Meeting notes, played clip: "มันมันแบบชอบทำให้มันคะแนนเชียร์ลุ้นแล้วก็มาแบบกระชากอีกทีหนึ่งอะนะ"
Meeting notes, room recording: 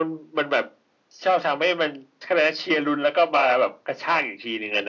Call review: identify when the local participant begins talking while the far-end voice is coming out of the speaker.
none

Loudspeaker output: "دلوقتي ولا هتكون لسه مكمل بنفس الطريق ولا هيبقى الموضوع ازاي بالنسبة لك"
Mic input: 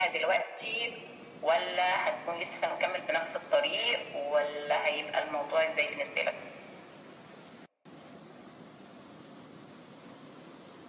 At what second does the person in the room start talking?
none

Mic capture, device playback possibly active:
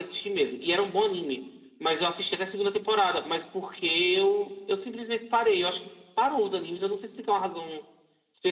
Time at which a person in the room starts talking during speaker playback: none

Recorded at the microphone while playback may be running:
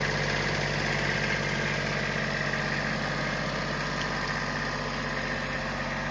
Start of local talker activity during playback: none

